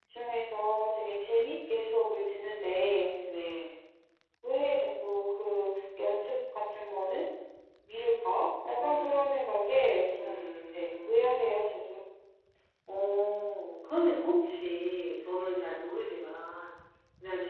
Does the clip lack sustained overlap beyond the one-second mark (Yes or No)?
No